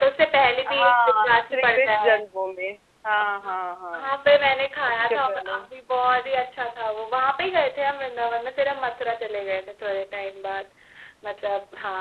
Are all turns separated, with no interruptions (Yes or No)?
No